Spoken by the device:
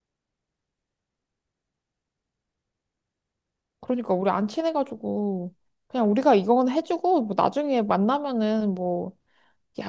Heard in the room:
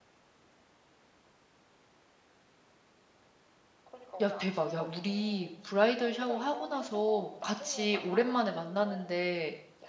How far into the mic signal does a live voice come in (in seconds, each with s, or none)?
4.2 s